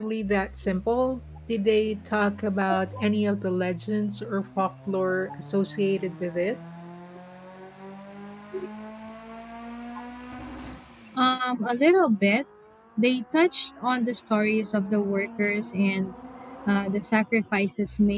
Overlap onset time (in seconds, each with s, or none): none